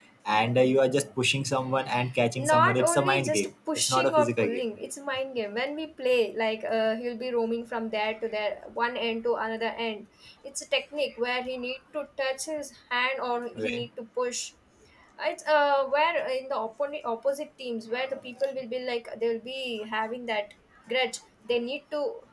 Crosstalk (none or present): present